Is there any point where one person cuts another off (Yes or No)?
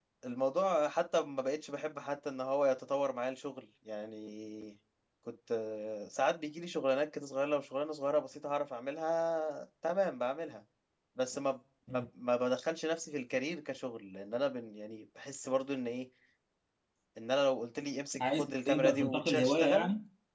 Yes